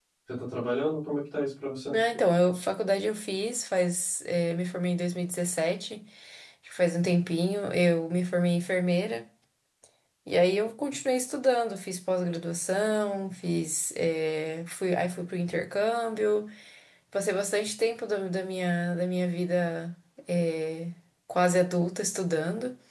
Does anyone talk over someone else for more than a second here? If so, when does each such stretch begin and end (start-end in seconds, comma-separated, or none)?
none